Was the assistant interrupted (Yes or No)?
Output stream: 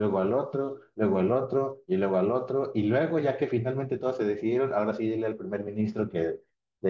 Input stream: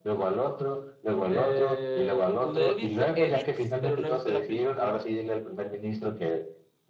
Yes